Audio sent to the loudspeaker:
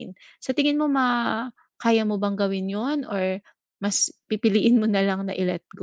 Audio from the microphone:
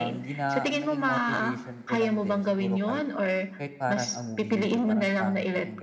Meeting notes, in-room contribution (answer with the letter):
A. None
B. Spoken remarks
B